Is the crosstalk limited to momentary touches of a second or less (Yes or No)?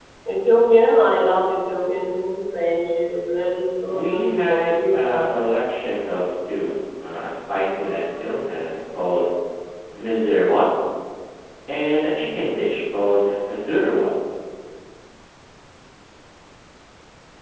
No